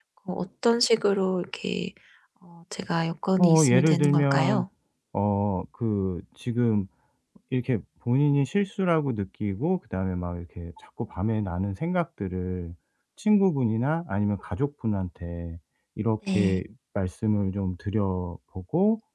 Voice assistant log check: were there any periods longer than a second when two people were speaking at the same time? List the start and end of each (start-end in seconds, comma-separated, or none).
3.4-4.6